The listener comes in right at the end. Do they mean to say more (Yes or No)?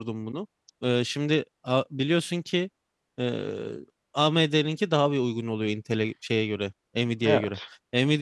No